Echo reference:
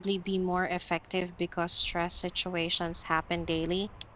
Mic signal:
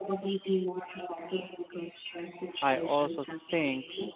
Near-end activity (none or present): present